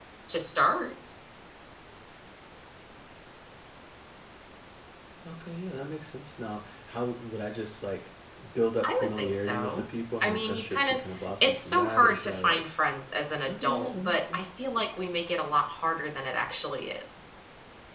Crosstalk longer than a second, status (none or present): present